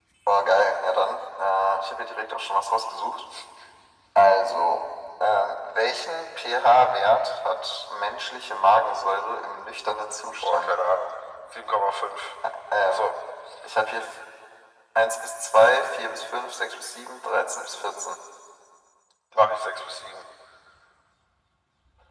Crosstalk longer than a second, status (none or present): none